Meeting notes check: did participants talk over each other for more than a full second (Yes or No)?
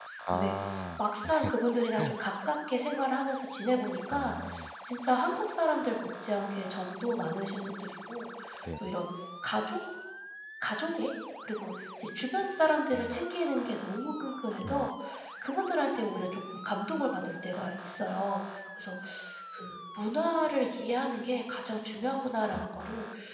No